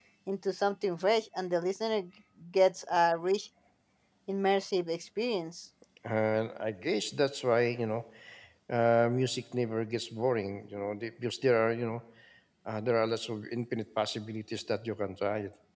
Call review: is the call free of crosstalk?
Yes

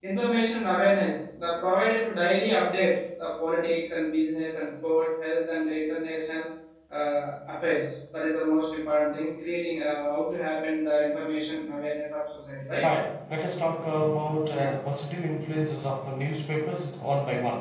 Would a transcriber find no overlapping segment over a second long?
Yes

